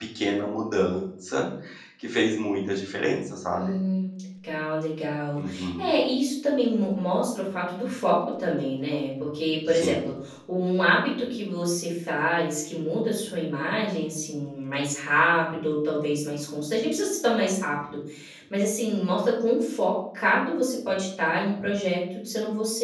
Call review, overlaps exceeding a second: none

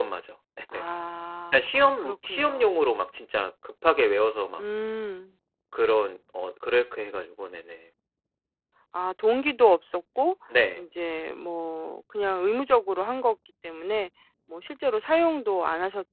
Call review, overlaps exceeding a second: present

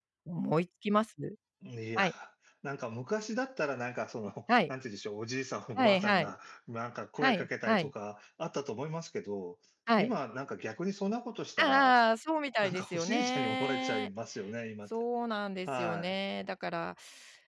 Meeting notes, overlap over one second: present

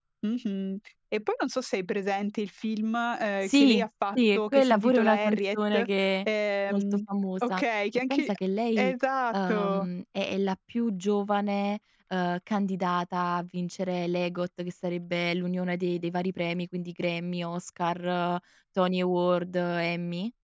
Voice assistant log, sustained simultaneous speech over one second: present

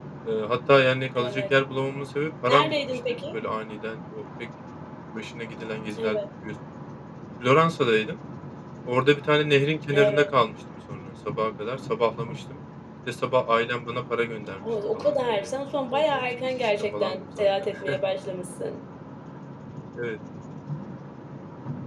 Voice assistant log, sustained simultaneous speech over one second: present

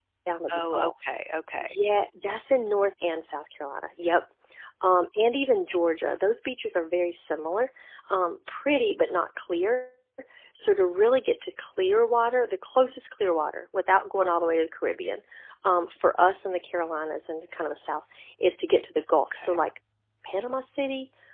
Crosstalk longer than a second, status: none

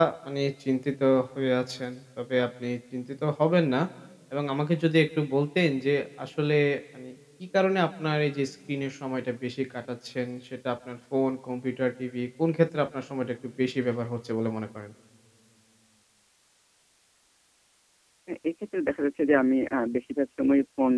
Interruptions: none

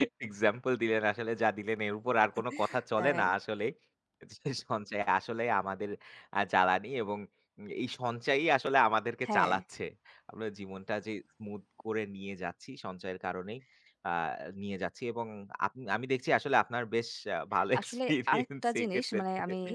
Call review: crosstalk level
present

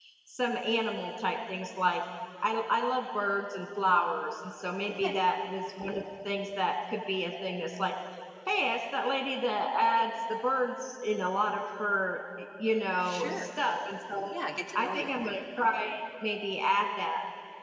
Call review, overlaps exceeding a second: none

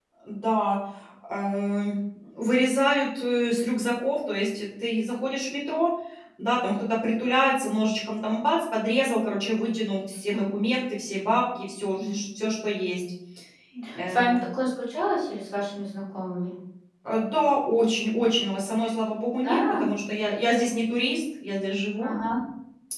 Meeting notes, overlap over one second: none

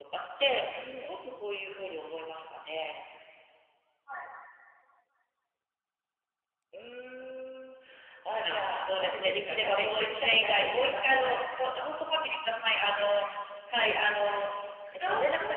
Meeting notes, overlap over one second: present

